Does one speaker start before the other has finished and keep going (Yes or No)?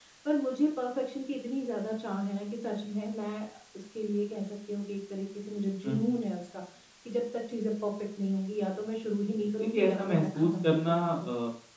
Yes